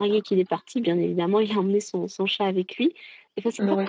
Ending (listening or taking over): listening